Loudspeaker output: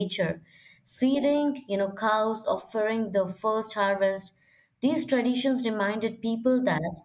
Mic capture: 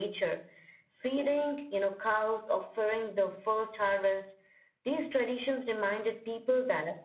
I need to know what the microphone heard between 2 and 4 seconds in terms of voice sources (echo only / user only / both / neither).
echo only